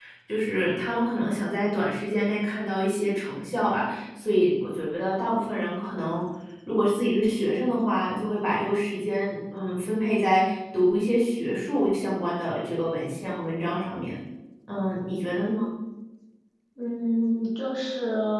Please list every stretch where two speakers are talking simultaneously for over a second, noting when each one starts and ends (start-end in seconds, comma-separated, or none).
none